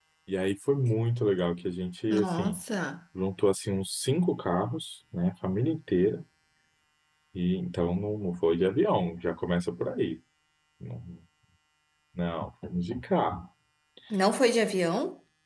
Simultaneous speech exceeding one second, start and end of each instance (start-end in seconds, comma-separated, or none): none